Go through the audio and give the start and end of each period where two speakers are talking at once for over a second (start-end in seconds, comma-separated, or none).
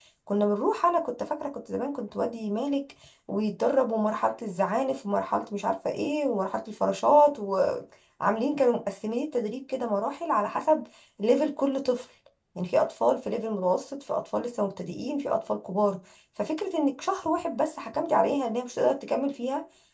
none